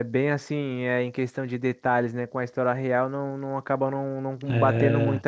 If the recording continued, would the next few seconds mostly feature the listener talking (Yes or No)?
No